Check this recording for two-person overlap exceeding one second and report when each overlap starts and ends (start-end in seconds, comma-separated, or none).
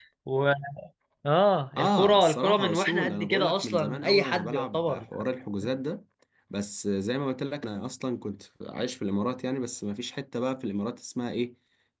1.8-5.0